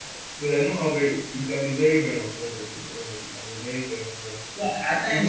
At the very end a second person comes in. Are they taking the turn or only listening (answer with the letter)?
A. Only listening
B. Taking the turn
B